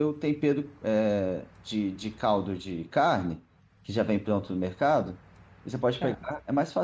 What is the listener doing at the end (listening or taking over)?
listening